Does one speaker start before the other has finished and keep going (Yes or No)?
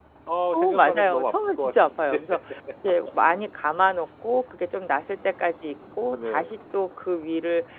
Yes